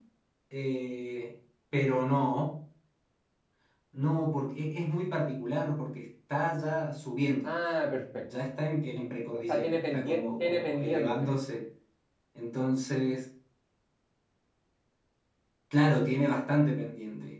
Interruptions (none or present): present